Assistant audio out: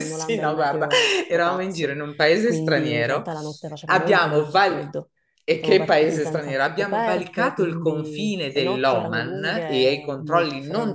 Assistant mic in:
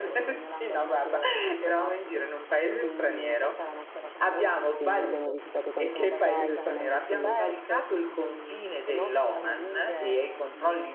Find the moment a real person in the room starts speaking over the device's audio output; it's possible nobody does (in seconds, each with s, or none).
4.8 s